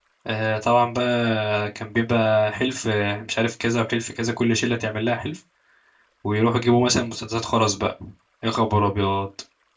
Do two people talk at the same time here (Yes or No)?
No